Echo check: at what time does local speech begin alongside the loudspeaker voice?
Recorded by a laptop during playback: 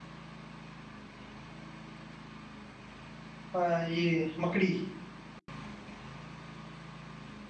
3.6 s

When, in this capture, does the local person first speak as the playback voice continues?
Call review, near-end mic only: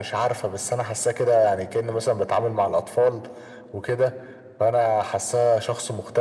none

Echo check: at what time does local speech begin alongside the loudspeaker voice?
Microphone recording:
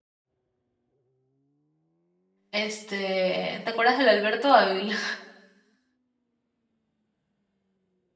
2.5 s

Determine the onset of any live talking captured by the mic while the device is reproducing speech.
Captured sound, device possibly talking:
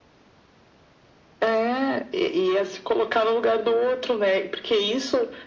none

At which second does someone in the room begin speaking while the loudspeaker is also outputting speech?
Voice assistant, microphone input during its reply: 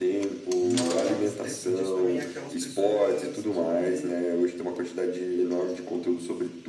0.6 s

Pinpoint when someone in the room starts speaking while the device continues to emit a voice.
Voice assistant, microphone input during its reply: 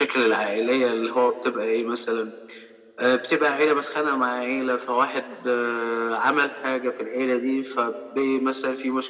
none

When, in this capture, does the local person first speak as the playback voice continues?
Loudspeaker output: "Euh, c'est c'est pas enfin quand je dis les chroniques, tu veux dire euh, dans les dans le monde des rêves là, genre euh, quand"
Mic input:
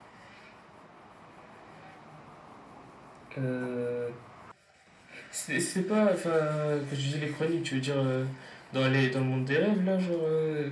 none

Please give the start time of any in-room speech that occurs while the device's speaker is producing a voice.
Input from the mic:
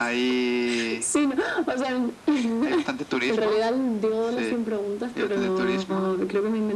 none

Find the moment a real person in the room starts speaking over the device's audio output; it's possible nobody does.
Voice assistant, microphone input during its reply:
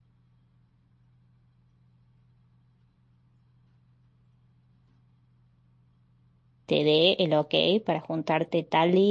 6.6 s

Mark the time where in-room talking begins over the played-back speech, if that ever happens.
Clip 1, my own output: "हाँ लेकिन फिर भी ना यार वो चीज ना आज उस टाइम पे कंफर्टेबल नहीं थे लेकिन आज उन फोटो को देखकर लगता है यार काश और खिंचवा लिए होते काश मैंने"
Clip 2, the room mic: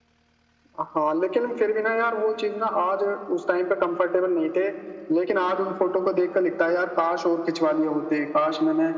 none

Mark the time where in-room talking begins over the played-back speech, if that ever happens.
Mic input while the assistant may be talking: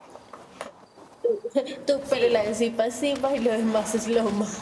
2.0 s

